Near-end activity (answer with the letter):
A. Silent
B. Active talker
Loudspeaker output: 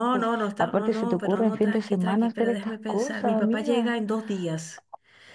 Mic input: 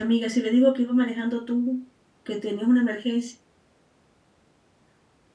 B